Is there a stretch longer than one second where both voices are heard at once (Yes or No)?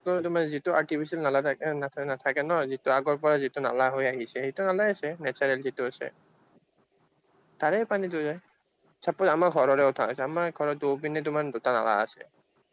No